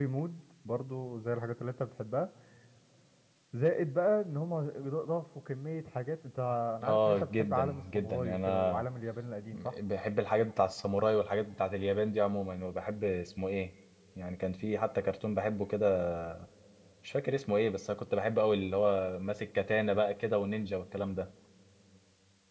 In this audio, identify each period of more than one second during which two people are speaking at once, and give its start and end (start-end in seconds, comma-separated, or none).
6.9-8.8